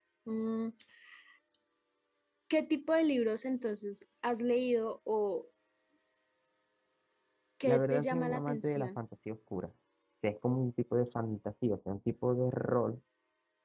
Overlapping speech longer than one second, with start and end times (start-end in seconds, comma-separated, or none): 7.6-8.9